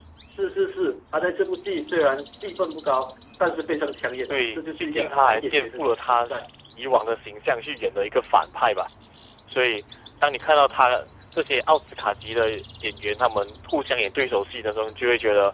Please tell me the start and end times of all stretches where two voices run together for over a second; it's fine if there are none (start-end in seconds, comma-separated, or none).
4.3-6.3